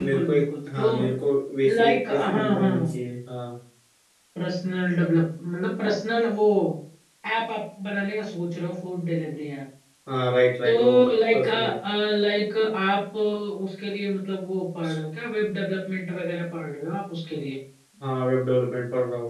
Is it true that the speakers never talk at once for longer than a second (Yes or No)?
No